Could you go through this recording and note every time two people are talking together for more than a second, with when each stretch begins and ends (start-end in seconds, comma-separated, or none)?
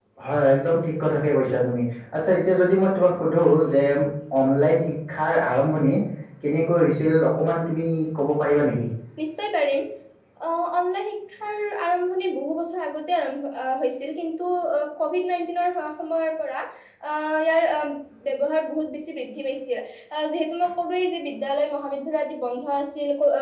none